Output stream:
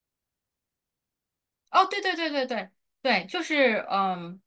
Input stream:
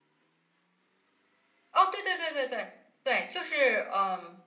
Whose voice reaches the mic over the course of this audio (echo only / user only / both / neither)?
echo only